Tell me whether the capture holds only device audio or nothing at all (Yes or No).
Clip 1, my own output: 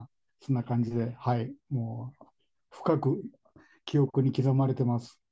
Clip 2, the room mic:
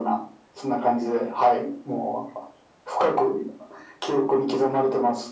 Yes